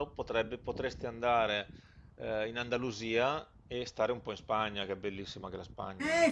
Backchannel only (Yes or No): No